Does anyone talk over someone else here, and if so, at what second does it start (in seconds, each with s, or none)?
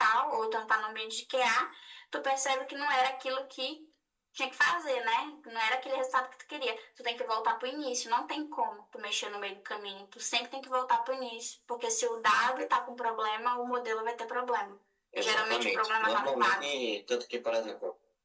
15.2 s